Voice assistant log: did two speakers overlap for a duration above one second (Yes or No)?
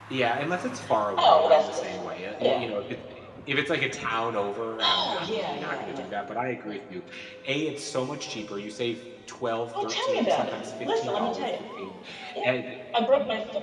Yes